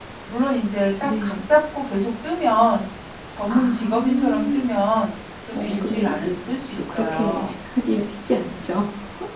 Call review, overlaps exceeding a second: present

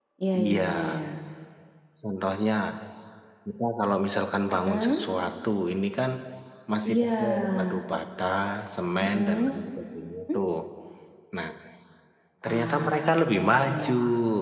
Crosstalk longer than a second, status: present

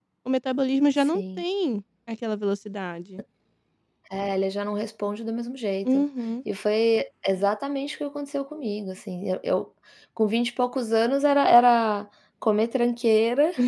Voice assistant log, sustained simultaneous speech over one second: none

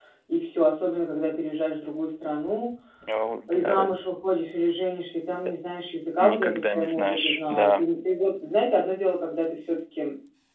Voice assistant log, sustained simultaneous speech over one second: present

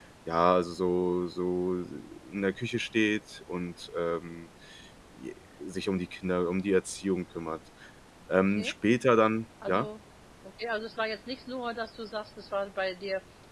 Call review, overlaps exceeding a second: none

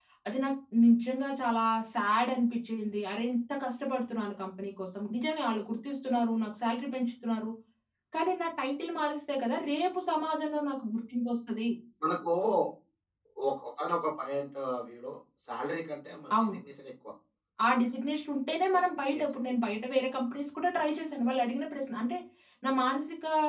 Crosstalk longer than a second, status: none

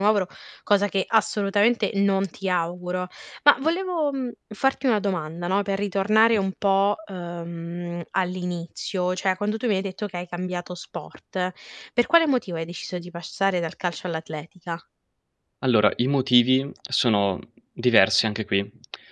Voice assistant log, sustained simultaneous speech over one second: none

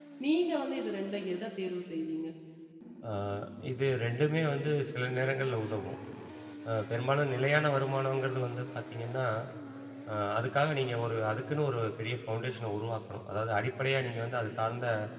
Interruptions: none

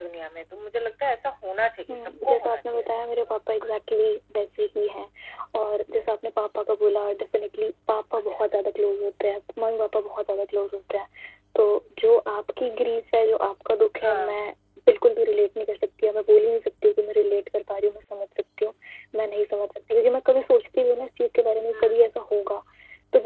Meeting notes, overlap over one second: present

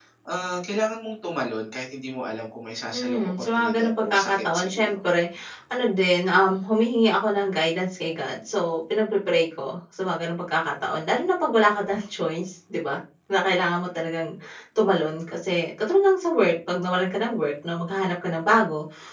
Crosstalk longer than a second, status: present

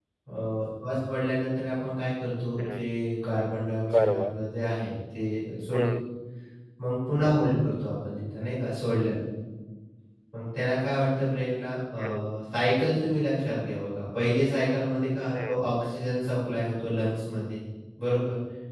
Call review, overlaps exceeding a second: none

